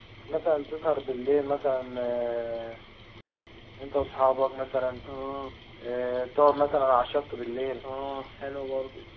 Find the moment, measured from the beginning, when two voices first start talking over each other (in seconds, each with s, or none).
none